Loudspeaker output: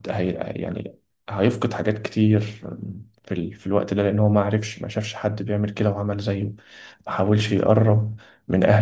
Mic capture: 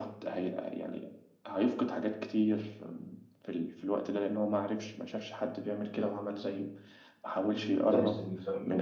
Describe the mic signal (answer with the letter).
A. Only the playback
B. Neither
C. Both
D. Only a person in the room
C